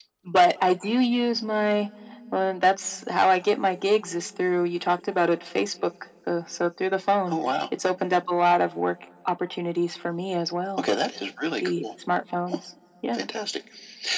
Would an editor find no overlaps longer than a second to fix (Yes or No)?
Yes